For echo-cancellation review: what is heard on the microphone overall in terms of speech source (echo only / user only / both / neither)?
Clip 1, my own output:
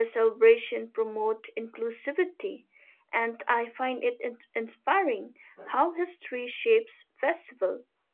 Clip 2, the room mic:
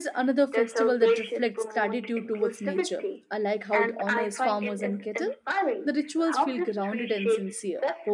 both